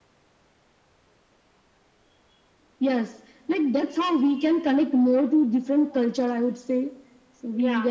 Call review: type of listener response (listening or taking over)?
taking over